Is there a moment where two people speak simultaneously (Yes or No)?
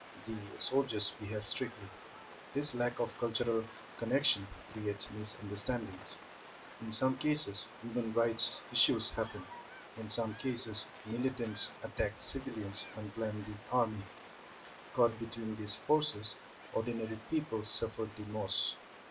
No